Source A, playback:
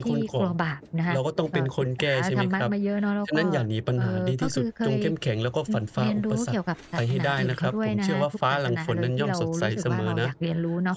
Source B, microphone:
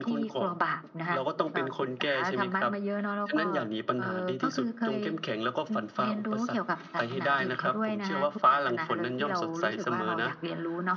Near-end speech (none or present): none